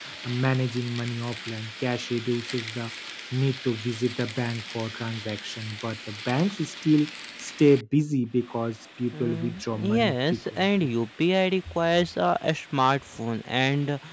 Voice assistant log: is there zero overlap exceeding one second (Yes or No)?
No